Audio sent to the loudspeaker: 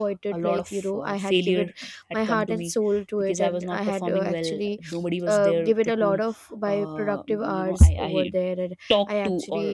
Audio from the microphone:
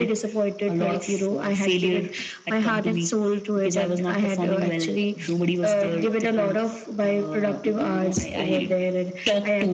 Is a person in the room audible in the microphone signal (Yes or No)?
No